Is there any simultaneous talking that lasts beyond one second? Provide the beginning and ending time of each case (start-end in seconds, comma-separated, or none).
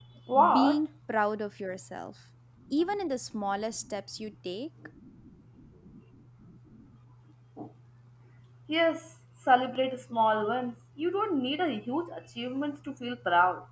none